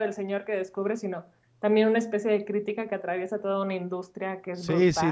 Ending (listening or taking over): taking over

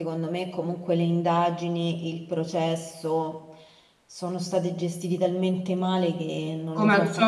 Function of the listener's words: taking over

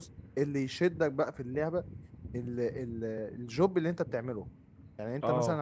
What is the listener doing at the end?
listening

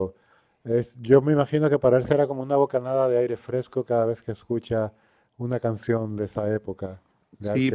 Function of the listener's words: taking over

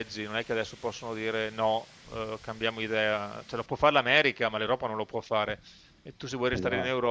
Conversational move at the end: listening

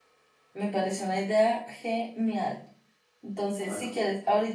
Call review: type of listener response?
listening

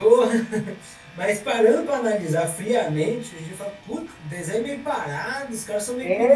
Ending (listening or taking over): taking over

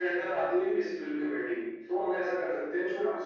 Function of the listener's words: listening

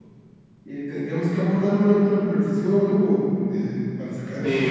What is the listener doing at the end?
taking over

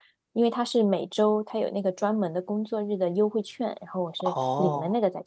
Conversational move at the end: taking over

